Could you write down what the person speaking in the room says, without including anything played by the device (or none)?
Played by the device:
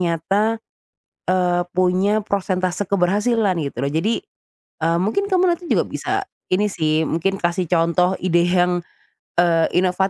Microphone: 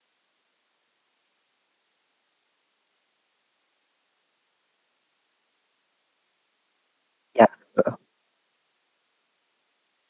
ya, heeh.